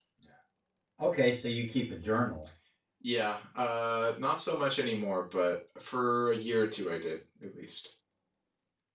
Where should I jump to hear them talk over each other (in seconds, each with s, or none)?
none